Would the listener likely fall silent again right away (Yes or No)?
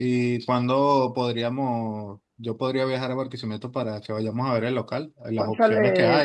Yes